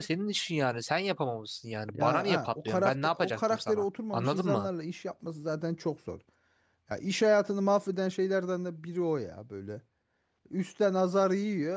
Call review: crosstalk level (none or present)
present